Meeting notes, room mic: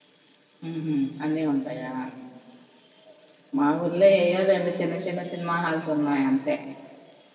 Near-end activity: present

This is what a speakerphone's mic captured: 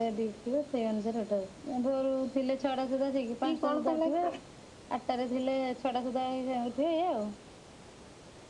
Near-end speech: present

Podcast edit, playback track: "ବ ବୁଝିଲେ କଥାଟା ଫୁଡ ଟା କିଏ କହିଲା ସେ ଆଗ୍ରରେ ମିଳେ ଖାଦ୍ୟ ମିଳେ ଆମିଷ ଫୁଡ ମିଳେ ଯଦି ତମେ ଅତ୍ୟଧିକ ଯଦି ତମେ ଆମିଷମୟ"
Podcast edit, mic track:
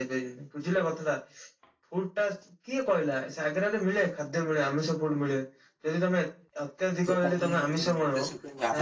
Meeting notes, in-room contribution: present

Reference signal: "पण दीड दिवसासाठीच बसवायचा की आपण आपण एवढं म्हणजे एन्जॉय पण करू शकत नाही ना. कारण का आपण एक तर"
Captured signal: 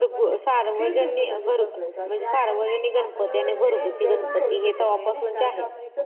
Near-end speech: present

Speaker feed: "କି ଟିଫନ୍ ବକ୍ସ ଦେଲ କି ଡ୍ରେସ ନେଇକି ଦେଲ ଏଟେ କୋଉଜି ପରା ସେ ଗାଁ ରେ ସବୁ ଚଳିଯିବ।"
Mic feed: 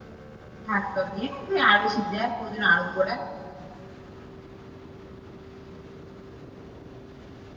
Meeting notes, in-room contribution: present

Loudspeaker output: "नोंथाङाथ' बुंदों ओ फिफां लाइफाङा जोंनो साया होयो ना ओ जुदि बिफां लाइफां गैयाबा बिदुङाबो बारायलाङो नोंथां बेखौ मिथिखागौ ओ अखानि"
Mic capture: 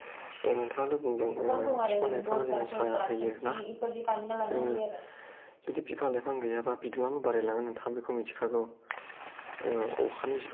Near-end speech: present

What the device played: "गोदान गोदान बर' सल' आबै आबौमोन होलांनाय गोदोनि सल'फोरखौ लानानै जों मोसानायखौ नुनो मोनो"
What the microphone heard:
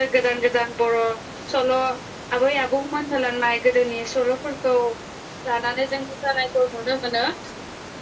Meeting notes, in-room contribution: none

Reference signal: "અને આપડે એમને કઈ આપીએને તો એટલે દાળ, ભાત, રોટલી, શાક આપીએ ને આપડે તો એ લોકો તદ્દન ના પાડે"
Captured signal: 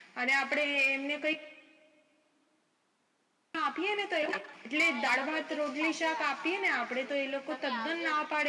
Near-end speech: present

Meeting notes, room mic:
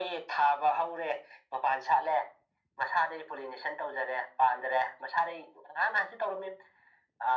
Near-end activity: none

